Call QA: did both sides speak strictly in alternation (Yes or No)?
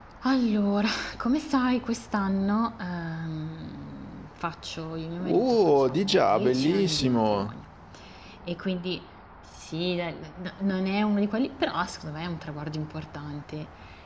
No